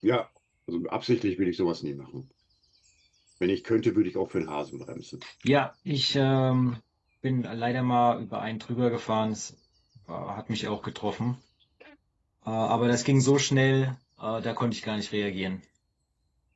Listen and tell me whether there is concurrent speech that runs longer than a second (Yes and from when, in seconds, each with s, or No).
No